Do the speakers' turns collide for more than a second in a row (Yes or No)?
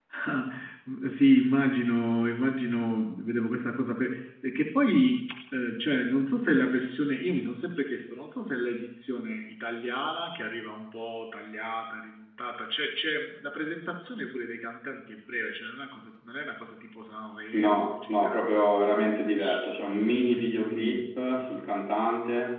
Yes